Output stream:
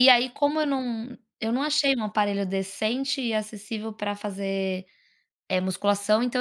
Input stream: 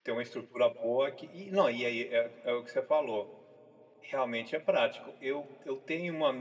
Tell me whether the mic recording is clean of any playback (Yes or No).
Yes